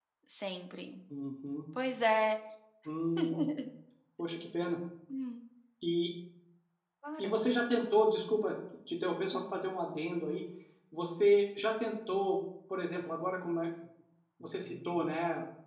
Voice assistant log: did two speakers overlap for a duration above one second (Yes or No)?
No